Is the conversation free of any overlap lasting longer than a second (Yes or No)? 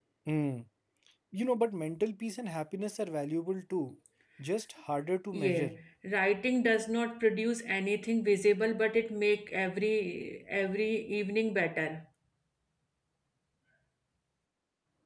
Yes